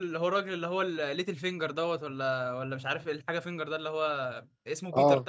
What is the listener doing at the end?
listening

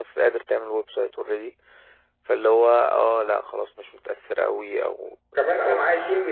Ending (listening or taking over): taking over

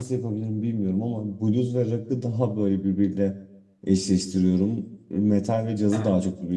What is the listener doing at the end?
listening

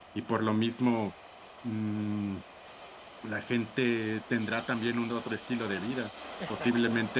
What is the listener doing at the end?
listening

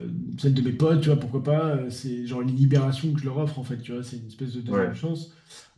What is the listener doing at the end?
listening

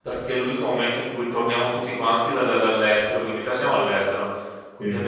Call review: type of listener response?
listening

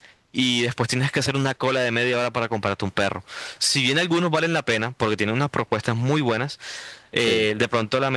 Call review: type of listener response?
listening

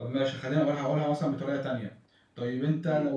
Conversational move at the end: listening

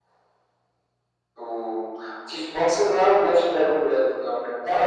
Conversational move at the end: taking over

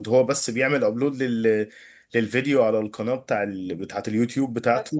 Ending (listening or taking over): listening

